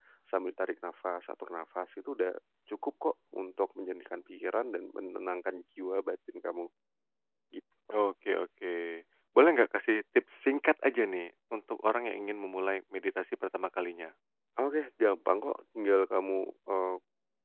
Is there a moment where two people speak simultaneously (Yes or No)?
No